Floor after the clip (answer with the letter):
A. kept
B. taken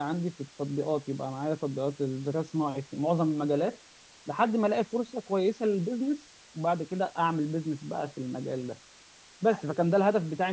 A